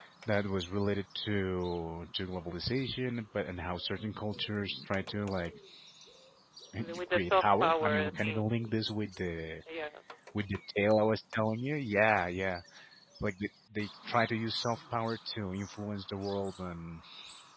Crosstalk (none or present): present